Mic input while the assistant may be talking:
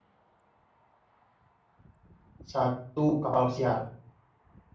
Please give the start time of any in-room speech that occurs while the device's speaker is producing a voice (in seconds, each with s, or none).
2.4 s